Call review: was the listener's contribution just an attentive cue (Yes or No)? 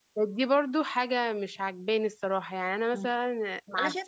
No